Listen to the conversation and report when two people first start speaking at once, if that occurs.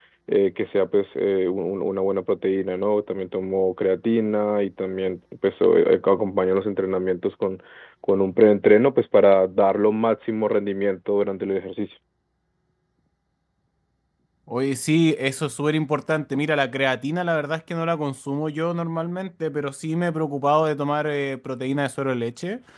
none

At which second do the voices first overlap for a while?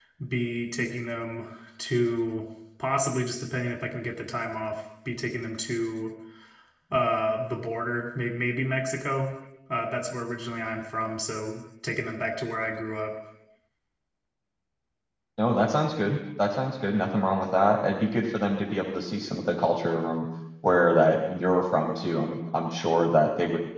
none

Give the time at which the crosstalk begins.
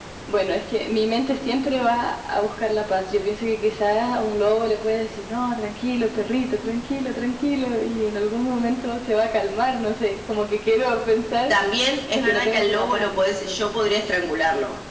12.1 s

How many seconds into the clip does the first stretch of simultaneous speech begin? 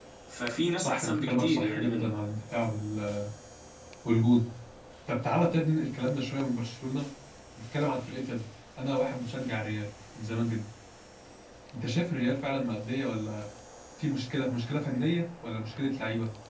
0.8 s

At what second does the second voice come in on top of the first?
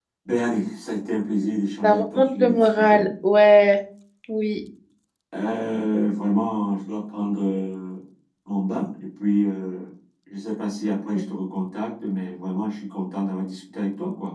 1.8 s

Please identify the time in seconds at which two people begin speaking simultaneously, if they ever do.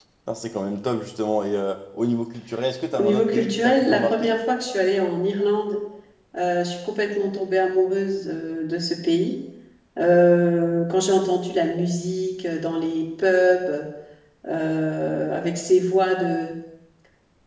2.9 s

